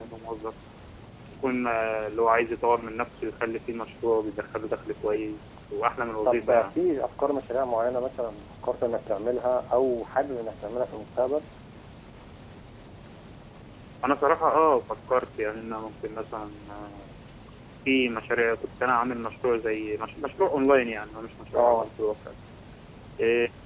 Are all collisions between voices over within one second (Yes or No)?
Yes